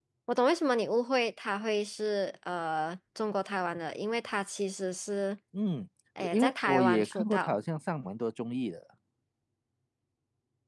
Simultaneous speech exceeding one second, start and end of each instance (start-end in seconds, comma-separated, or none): 6.3-7.6